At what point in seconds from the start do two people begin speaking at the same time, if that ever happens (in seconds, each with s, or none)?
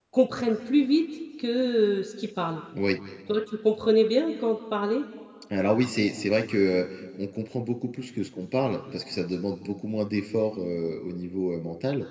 none